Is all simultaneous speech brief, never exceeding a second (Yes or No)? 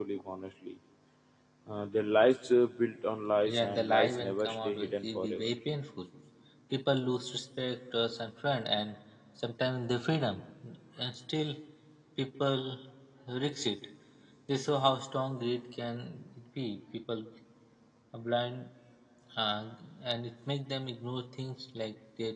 No